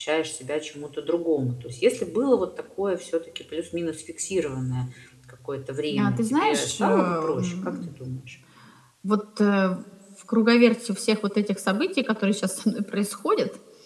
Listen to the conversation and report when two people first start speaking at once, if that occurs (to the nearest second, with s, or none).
6 s